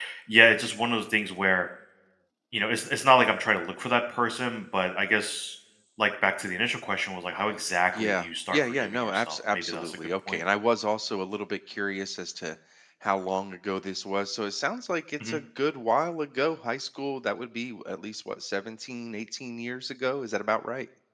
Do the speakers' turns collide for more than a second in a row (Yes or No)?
Yes